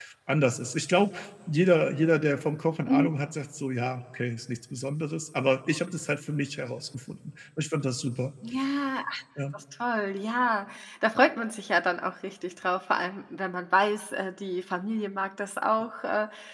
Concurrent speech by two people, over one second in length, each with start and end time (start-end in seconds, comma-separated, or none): none